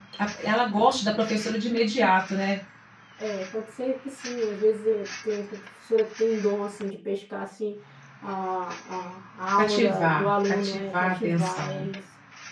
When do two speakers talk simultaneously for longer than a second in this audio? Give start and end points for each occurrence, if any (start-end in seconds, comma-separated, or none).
9.6-11.9